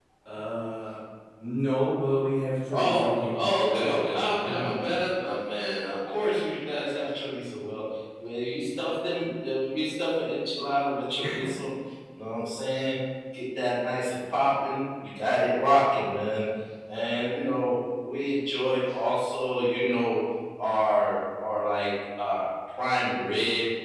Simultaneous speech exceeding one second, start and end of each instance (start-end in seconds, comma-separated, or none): 2.7-5.0